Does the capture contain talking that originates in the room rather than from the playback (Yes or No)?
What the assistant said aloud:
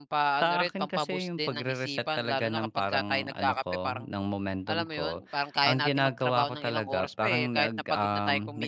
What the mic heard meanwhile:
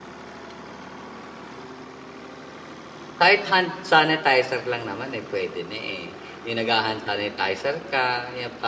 Yes